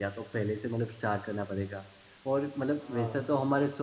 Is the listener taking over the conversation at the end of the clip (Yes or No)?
No